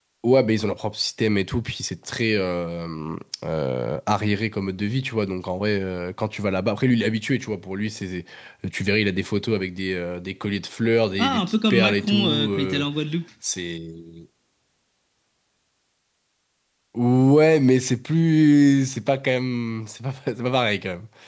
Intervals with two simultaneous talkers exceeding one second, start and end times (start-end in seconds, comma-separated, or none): 11.2-12.8